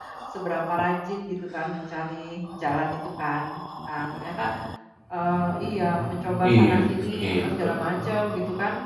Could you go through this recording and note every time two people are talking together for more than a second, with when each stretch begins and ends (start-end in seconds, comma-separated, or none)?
6.5-8.0